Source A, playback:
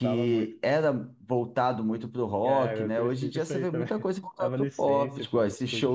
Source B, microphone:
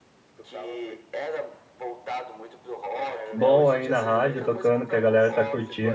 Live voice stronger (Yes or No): Yes